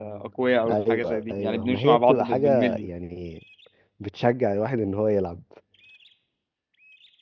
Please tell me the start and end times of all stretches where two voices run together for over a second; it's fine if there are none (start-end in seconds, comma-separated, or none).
0.7-2.9